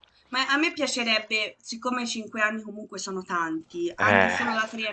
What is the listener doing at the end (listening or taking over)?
listening